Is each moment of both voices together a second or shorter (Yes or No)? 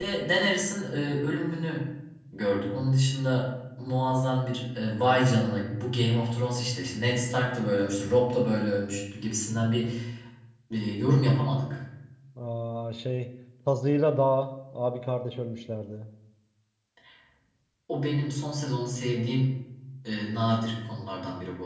Yes